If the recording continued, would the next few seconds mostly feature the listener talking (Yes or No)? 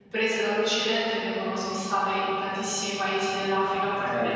Yes